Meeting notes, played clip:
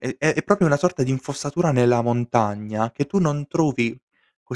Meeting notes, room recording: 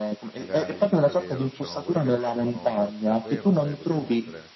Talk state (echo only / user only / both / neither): both